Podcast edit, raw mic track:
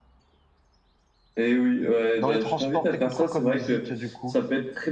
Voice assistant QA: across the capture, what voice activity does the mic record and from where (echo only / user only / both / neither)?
both